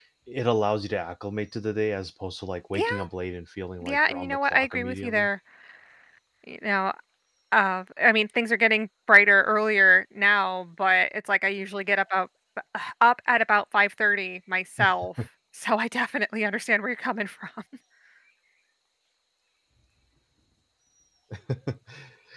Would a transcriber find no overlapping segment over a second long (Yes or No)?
No